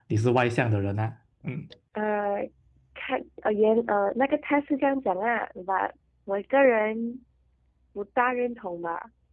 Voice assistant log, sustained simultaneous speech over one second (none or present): none